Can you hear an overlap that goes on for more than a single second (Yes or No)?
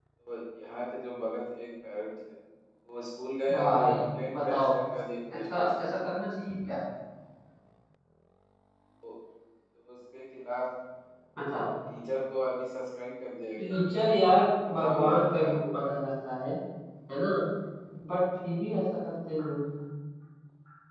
Yes